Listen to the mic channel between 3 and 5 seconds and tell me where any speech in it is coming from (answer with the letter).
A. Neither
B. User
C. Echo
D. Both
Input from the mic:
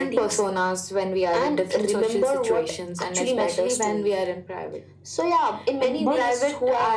C